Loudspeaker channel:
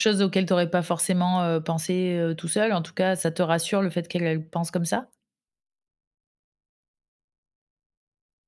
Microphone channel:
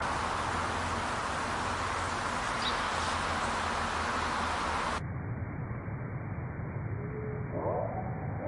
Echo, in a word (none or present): none